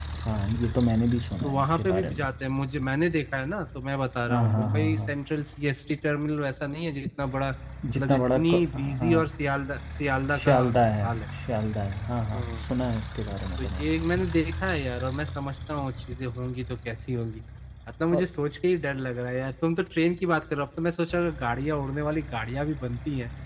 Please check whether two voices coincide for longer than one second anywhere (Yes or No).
Yes